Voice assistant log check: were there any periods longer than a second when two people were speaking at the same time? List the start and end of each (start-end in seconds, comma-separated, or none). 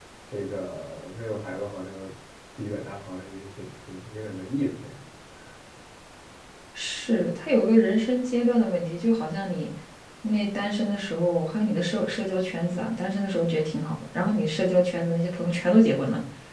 none